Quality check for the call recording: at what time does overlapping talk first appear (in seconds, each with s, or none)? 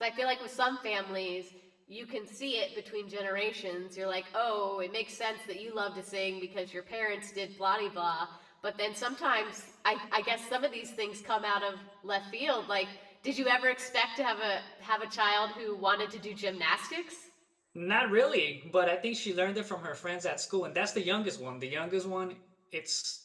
none